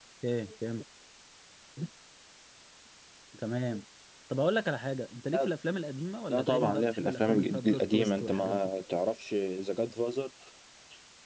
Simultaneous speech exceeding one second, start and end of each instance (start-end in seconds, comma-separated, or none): 6.3-8.6